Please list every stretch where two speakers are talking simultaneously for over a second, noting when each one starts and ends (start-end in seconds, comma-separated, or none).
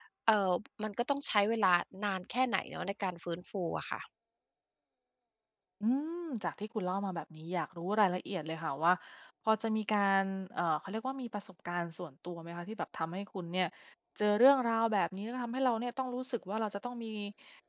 none